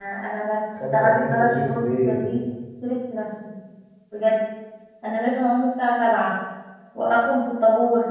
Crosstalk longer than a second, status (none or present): present